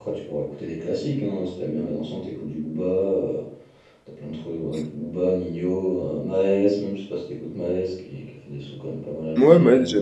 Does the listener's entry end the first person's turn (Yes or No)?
Yes